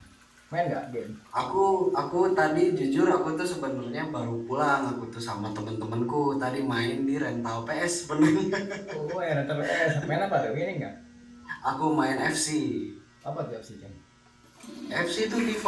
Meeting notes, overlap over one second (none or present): none